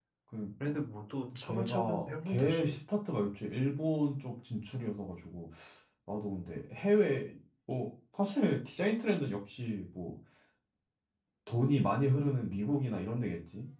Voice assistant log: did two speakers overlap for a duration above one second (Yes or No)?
Yes